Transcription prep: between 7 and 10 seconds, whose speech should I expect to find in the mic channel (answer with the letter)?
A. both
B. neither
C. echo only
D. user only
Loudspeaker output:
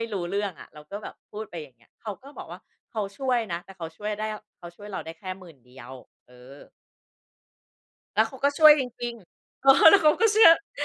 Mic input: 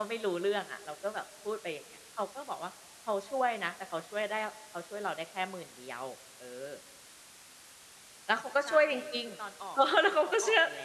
A